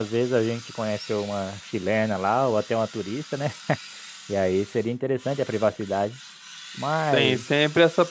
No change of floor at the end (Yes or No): No